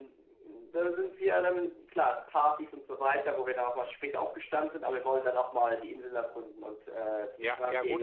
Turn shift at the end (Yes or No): Yes